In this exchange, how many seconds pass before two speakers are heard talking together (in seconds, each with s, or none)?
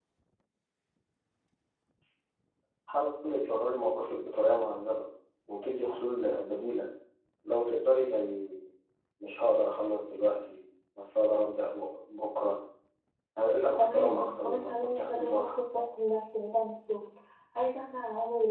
13.8 s